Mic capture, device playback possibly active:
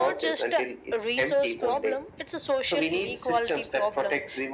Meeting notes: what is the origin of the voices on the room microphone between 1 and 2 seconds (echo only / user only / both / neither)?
echo only